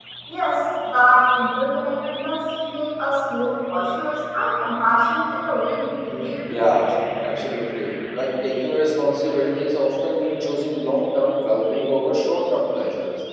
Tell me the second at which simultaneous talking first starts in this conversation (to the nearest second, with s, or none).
none